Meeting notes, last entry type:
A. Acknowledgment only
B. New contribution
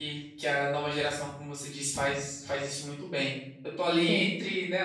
A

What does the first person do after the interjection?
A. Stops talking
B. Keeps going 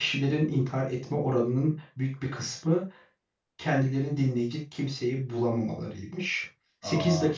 B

